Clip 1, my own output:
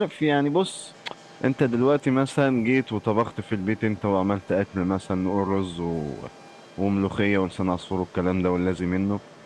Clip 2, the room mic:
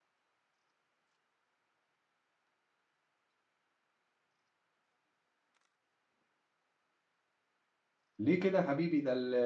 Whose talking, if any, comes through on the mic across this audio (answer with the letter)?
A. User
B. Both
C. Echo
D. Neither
A